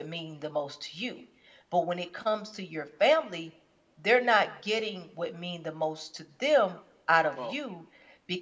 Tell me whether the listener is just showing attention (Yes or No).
Yes